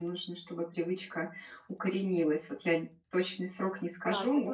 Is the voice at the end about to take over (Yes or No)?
Yes